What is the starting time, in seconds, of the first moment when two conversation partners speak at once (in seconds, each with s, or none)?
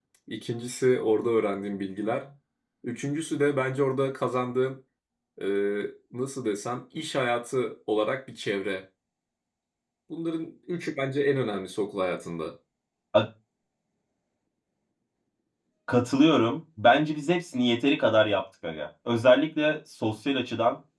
none